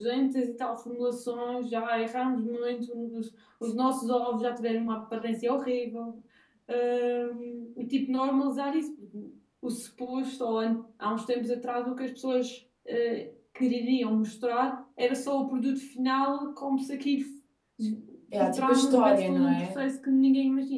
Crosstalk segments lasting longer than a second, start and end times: 18.4-19.8

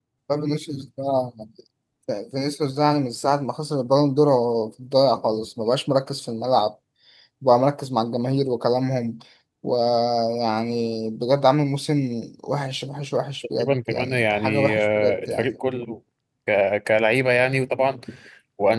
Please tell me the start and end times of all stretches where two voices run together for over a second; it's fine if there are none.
13.6-15.5

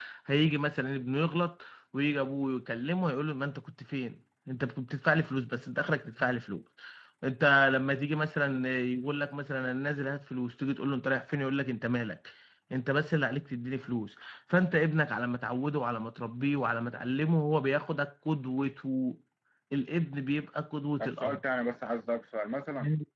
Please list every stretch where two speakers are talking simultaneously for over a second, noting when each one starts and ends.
none

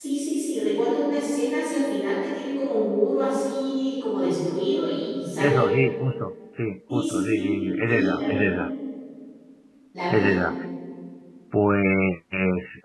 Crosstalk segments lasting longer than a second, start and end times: 6.9-8.5

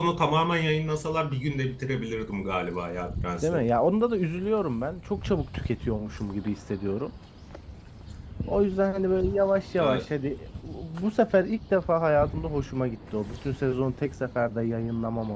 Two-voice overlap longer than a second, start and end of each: none

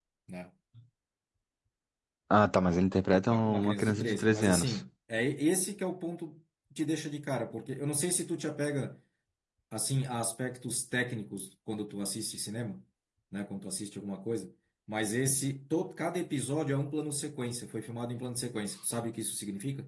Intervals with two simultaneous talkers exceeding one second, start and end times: 3.3-4.8

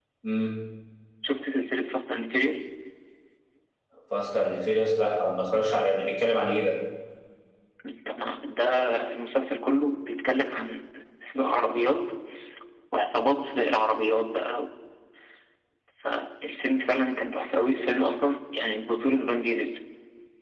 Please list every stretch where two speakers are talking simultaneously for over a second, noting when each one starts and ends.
none

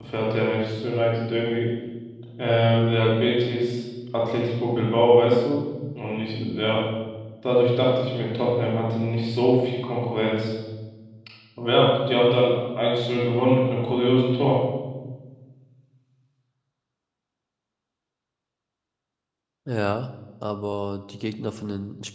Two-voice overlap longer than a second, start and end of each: none

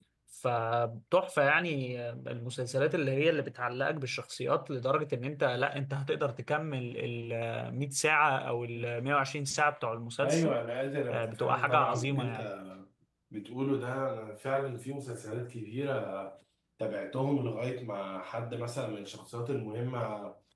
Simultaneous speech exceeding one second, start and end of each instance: 11.1-12.4

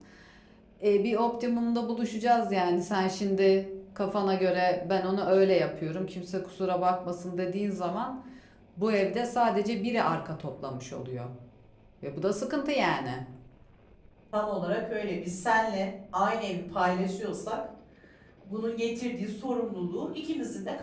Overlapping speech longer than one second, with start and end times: none

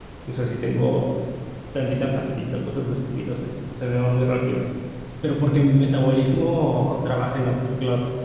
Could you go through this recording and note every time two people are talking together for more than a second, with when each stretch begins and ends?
none

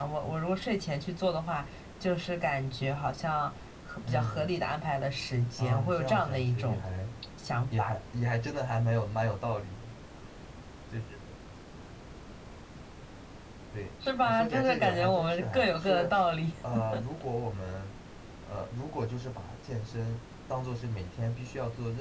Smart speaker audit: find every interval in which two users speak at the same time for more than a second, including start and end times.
5.6-6.8, 14.2-16.1

